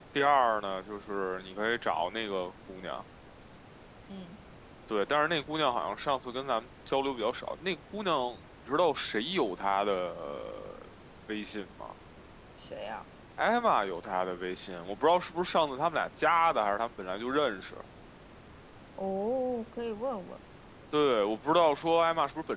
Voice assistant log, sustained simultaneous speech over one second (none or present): none